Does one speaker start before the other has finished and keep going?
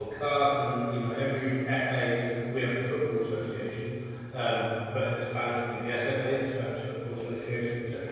No

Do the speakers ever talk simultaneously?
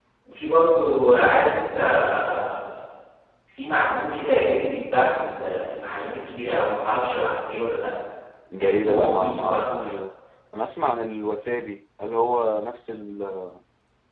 Yes, from 8.6 s

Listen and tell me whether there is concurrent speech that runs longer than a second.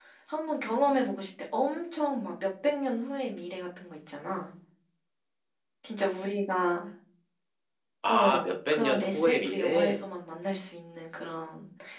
Yes, from 8.1 s

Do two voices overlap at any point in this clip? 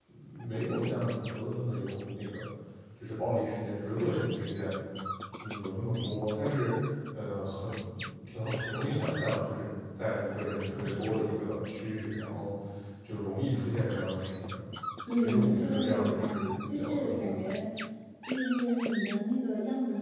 Yes, from 15.2 s

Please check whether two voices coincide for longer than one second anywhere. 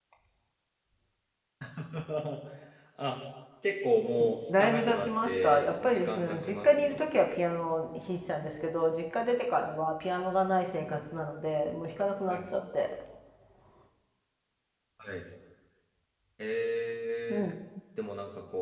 Yes, from 4.6 s

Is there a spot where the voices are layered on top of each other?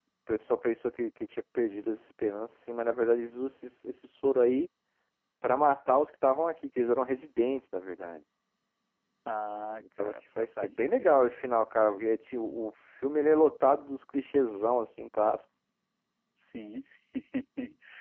Yes, from 10.0 s

